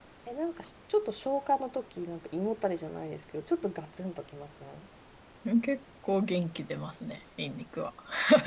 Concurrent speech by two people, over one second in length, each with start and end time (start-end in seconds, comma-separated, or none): none